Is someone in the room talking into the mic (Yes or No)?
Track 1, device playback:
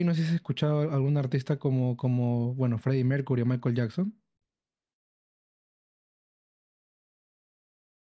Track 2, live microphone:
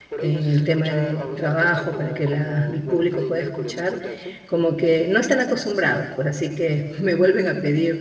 Yes